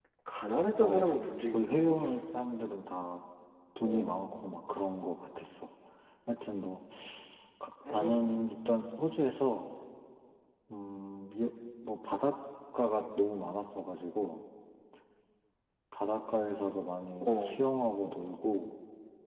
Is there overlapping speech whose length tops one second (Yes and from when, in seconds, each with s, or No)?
Yes, from 0.8 s